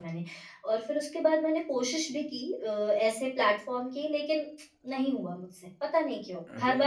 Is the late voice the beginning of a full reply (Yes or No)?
Yes